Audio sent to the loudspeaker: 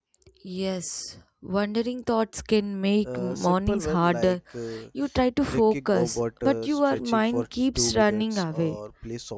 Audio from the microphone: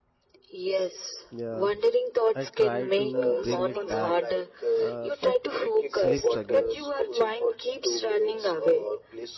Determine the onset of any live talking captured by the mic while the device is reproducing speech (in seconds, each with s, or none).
1.3 s